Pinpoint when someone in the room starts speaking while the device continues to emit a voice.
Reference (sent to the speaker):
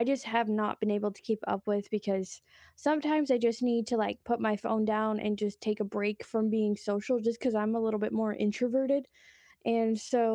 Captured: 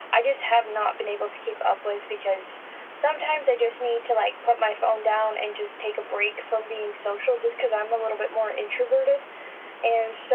none

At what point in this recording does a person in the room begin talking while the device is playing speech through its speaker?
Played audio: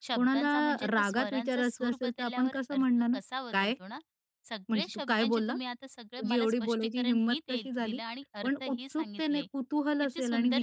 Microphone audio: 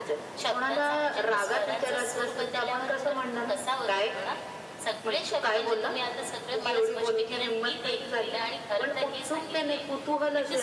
none

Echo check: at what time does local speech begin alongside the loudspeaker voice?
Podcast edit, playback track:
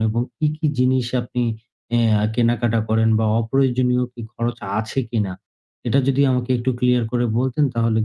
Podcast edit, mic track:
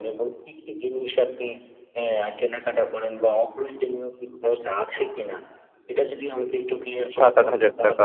7.1 s

